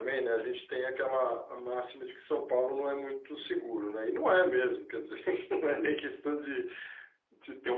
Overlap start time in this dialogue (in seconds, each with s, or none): none